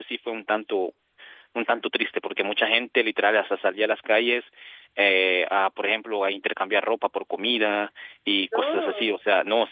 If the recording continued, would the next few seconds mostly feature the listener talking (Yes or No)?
No